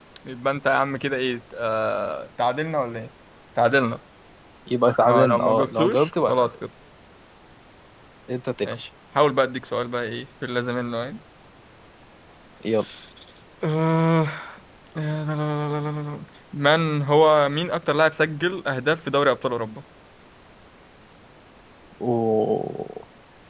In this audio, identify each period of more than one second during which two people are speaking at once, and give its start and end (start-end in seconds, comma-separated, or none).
5.1-6.5